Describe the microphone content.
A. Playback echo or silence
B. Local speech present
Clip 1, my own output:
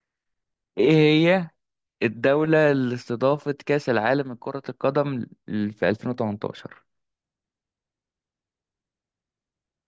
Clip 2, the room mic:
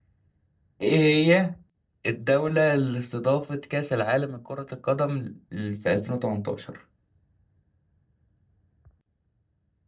A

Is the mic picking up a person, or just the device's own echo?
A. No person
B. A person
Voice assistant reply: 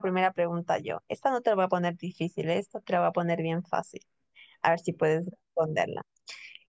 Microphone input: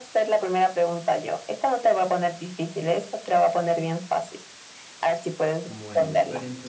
B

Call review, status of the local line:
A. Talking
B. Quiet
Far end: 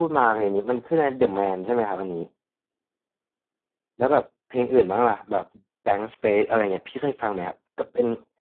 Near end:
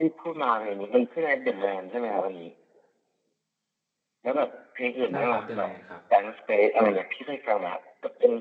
A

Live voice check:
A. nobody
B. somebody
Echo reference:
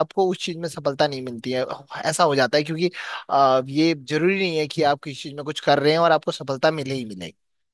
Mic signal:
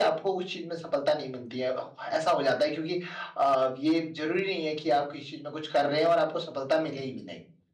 A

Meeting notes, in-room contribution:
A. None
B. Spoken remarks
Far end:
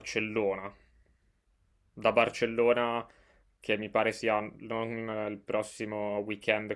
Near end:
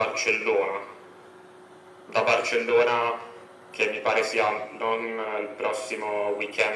A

